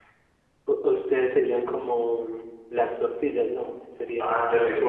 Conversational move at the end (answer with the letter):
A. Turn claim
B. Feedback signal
A